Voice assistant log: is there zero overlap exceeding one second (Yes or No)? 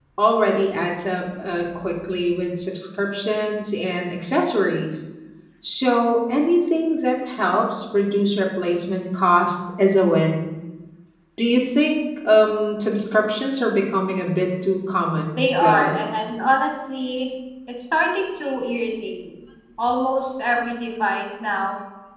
Yes